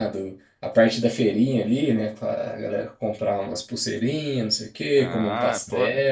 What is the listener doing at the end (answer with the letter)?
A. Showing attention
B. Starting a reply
B